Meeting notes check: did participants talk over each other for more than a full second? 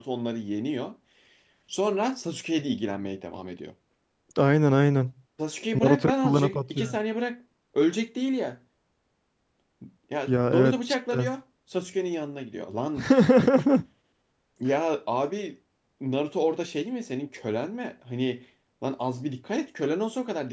Yes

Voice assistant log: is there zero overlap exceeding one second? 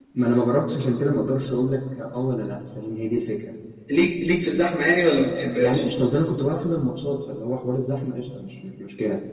Yes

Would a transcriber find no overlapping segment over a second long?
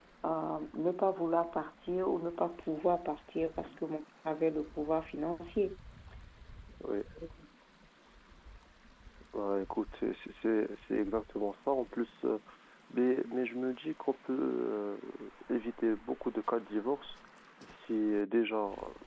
Yes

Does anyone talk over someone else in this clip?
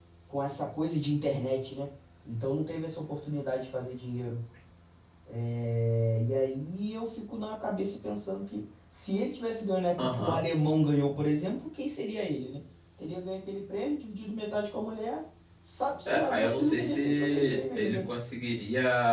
Yes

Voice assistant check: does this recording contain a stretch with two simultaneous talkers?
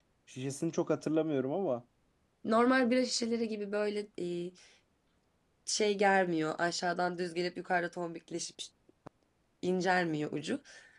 No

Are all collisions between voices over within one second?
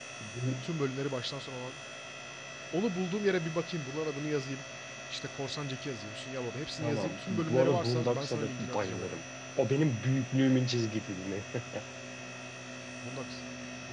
No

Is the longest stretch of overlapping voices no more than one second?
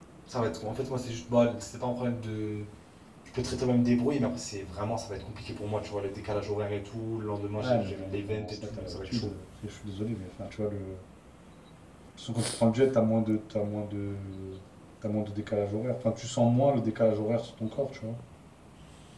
No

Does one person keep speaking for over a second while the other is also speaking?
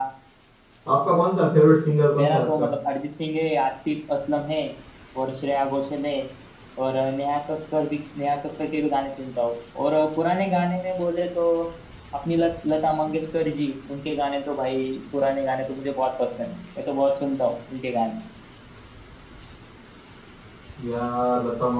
No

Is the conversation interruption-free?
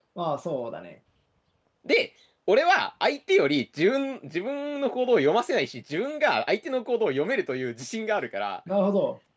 Yes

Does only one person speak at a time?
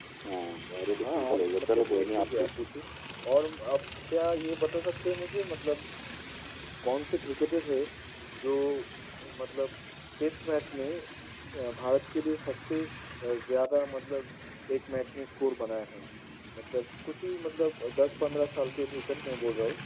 No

